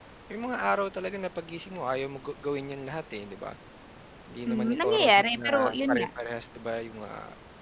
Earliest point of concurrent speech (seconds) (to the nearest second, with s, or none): 4 s